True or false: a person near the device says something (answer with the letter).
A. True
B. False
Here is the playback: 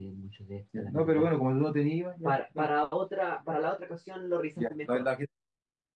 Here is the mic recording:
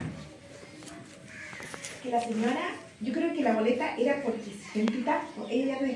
A